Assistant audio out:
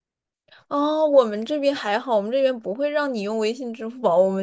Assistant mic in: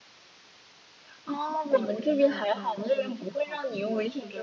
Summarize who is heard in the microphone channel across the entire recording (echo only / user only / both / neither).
both